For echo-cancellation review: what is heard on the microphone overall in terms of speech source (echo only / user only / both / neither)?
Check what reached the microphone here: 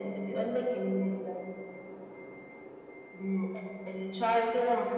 echo only